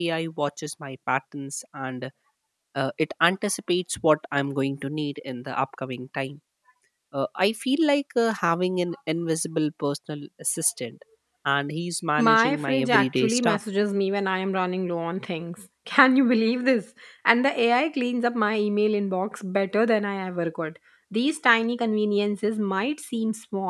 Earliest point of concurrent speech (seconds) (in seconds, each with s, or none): 12.2 s